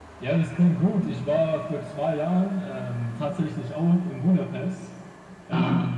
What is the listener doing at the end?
listening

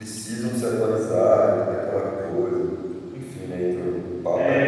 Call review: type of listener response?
taking over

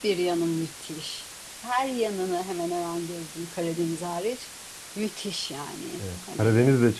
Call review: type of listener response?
taking over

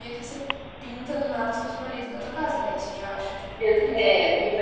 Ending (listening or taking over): taking over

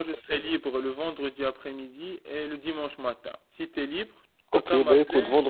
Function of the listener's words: taking over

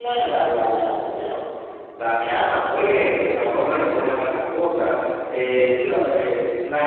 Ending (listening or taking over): listening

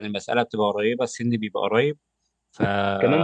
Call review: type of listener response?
taking over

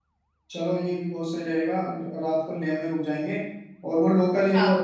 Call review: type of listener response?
listening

